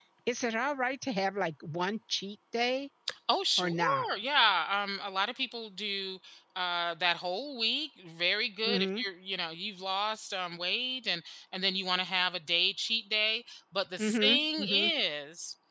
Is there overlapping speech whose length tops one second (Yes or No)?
No